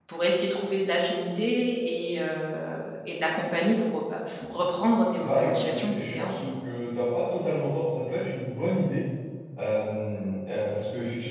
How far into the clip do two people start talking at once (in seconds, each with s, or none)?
5.2 s